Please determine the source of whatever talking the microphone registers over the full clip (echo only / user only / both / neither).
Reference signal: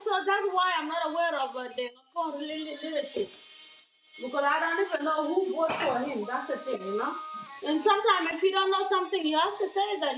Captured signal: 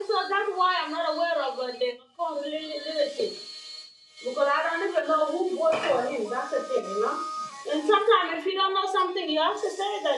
echo only